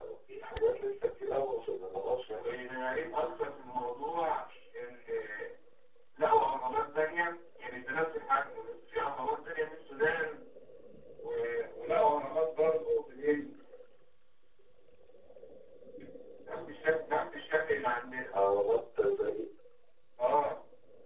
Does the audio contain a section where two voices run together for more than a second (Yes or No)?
No